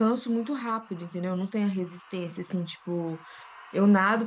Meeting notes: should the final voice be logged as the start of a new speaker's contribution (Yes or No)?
No